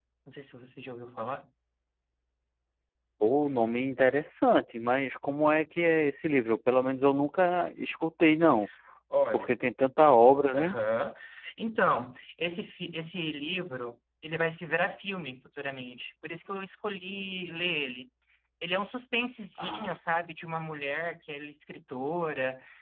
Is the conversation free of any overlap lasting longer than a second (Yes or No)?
Yes